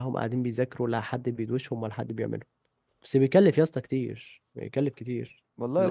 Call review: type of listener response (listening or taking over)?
taking over